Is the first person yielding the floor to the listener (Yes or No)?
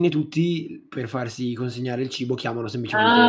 Yes